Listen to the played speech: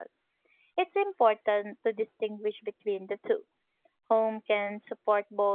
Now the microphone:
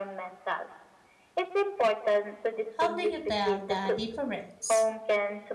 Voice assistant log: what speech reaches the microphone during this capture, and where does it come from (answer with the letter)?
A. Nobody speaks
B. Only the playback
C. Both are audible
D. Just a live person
C